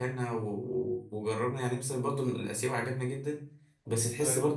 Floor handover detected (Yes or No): No